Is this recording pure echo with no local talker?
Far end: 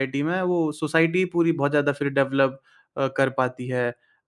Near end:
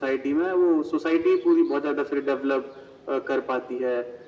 Yes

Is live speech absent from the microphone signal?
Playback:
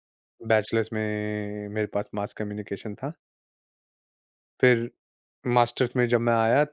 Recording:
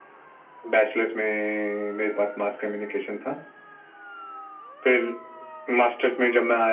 Yes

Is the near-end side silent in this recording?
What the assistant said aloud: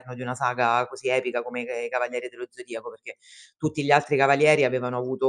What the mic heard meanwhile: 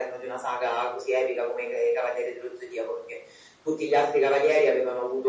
Yes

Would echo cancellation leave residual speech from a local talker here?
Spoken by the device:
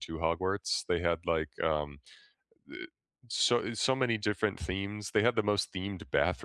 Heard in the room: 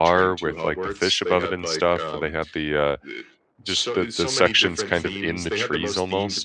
Yes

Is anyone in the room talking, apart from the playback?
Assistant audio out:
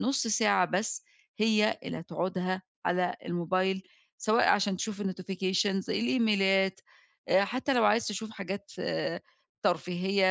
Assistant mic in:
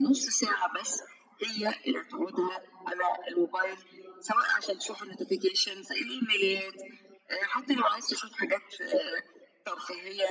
No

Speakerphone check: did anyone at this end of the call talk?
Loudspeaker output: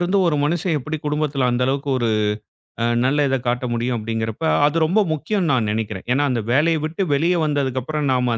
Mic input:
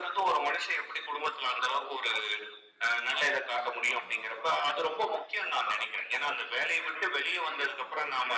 No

